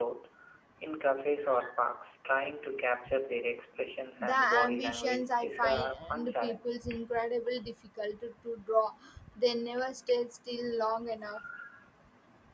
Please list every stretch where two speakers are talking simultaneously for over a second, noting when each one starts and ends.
4.2-6.7

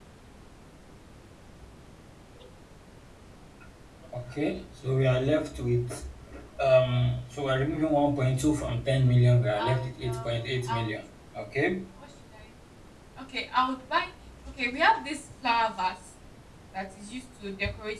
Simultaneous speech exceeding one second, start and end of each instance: 9.6-10.9

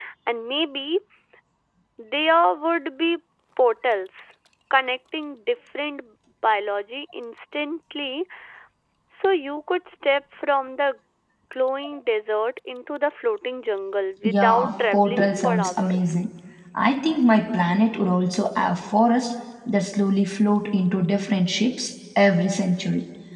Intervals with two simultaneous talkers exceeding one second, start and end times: 14.2-16.1

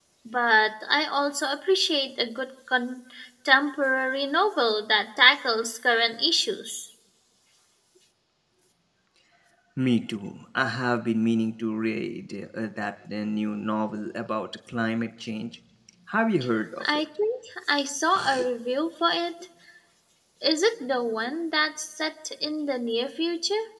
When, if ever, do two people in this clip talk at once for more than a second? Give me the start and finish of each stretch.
none

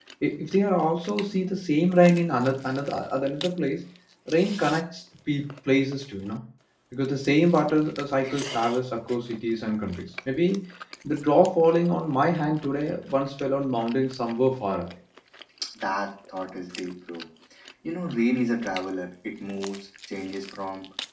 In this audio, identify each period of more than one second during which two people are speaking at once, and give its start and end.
none

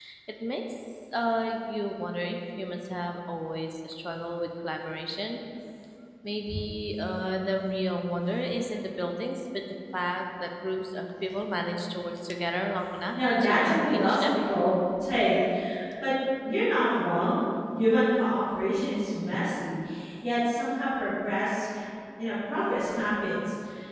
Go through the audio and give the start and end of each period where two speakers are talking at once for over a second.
13.1-14.3

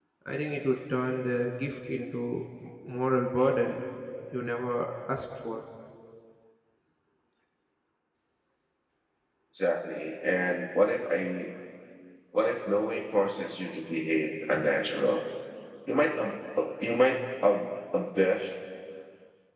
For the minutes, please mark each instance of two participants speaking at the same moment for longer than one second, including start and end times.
none

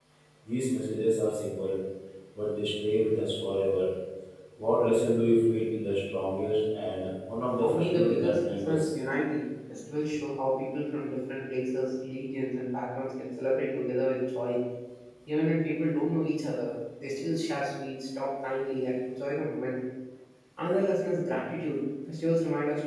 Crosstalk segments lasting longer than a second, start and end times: 7.6-8.9

